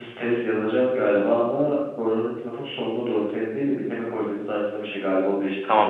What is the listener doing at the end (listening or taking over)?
taking over